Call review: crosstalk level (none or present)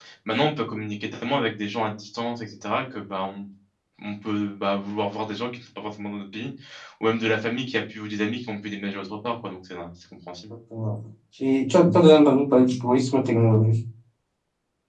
none